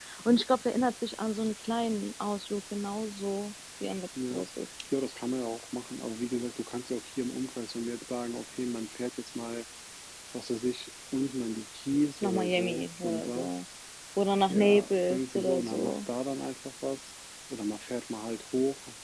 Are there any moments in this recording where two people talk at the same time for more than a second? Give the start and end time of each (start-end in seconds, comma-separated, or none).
12.2-13.5, 14.5-16.0